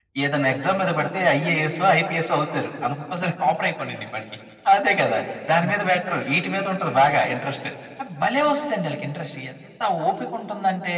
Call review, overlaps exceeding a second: none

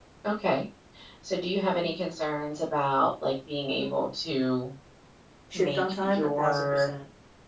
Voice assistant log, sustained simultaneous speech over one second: present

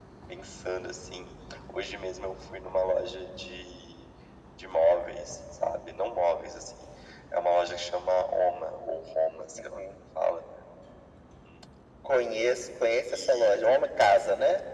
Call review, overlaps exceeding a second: none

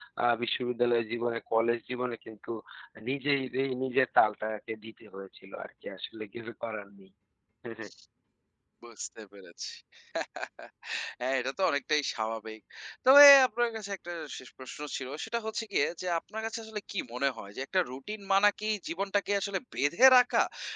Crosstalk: none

